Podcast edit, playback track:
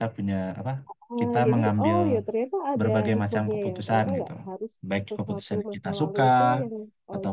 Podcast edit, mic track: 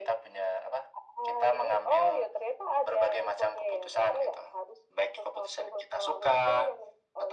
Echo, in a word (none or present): present